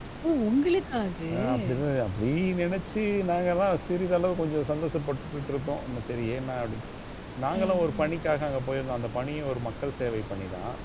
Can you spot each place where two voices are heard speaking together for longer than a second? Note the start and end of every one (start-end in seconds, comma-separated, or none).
none